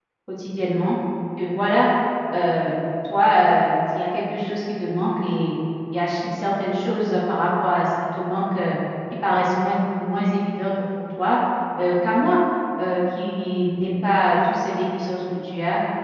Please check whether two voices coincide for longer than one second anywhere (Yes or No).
No